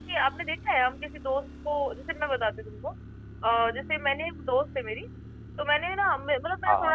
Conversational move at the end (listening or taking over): listening